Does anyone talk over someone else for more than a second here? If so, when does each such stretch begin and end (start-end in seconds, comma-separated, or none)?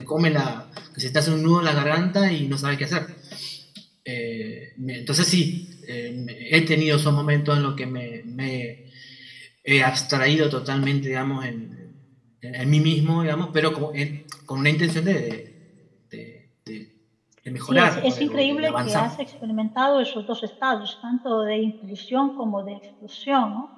17.6-19.1